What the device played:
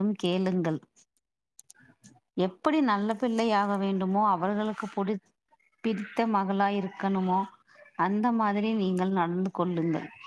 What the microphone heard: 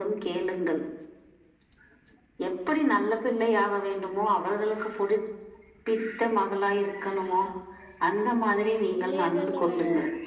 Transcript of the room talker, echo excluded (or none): அ பிள்ளைகளுடைய